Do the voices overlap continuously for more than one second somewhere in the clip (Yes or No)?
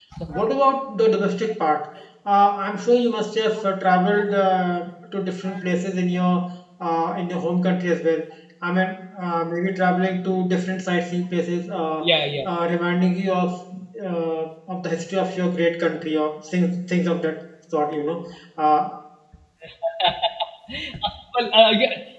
No